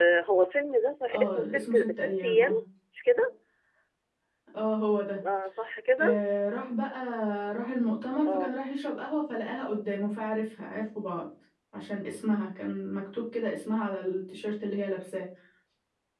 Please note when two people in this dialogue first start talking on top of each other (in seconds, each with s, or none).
1.1 s